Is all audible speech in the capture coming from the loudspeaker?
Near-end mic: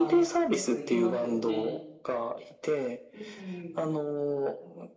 No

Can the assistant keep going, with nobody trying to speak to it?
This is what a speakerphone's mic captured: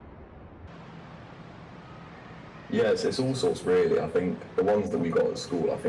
Yes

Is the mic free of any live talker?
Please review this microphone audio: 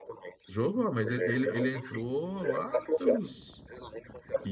No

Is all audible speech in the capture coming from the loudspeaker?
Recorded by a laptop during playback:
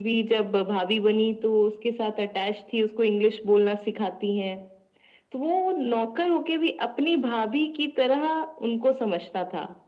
Yes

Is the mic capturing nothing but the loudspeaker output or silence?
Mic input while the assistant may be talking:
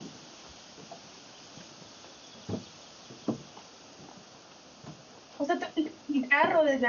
No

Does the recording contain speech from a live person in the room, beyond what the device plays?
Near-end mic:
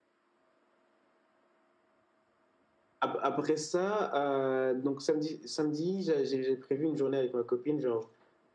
No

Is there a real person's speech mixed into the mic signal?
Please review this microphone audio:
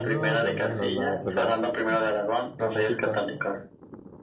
Yes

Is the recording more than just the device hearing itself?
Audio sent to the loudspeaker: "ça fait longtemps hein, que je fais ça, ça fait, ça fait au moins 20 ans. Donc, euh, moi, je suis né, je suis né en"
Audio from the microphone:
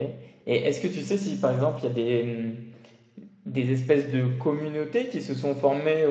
Yes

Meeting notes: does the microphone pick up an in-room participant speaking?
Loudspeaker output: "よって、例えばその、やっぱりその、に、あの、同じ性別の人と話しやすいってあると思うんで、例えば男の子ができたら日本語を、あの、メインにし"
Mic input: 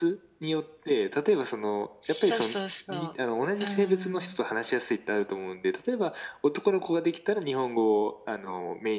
Yes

